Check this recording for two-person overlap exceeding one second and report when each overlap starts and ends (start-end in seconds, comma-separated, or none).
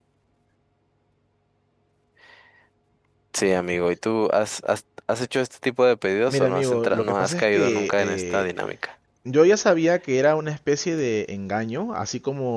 6.3-8.5